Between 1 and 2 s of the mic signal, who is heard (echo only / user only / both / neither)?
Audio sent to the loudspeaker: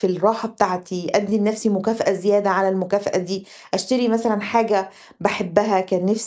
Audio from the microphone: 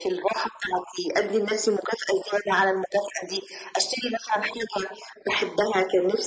echo only